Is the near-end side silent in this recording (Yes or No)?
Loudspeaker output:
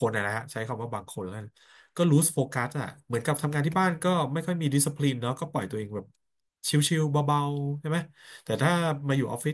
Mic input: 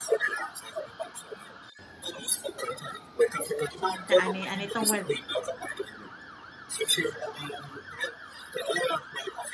No